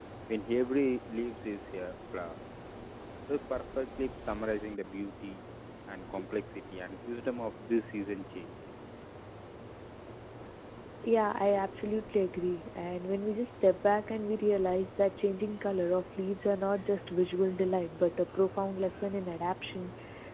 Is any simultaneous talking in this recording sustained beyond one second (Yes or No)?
No